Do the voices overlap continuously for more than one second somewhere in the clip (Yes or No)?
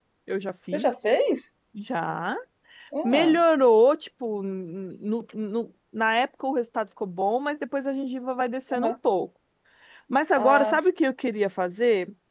No